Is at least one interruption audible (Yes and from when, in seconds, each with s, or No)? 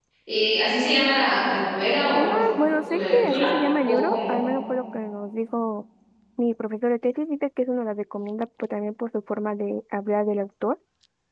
Yes, from 2.1 s